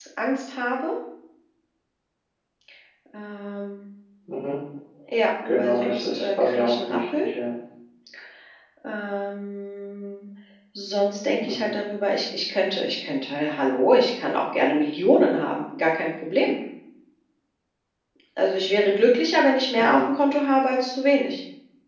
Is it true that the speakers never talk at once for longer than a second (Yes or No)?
No